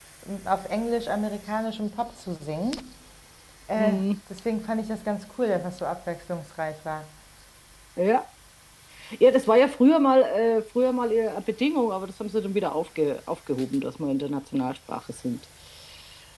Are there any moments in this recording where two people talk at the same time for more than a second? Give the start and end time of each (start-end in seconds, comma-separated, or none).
none